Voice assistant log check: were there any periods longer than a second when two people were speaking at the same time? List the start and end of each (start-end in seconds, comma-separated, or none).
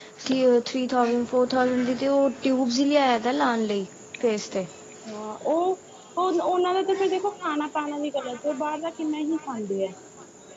none